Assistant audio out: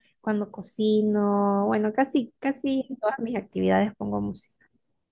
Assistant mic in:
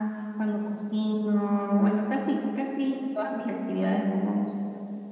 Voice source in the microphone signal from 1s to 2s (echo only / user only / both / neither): echo only